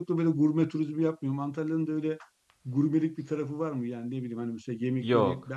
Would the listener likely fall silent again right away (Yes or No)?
Yes